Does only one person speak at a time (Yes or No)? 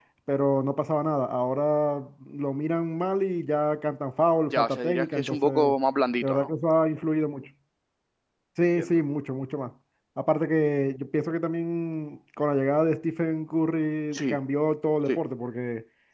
No